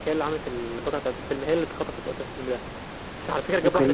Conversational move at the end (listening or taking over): taking over